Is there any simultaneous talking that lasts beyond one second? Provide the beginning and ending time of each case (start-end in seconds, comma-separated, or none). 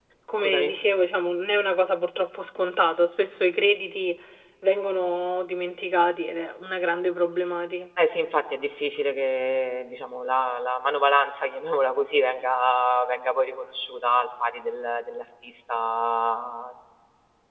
none